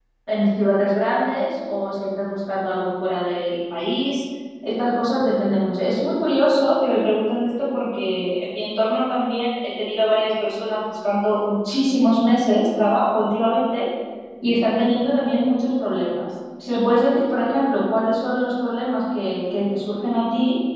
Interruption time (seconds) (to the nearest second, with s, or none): none